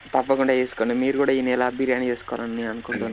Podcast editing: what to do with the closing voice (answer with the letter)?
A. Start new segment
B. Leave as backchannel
A